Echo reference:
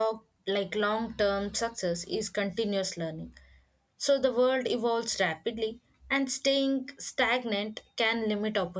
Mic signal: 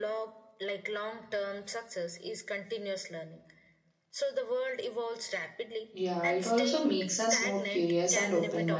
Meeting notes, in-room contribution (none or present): present